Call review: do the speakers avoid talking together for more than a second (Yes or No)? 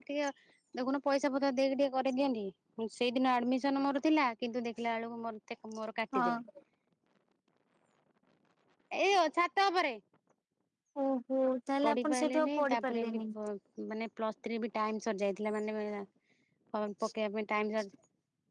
No